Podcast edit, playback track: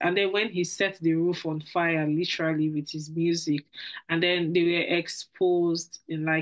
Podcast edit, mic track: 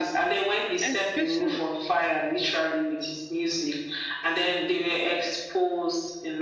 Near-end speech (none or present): present